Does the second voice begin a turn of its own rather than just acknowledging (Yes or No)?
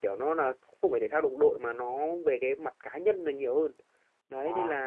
No